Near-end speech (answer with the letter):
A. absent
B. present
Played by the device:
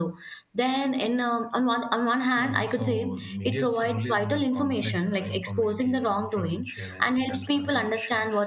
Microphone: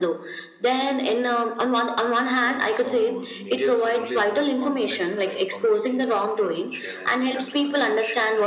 A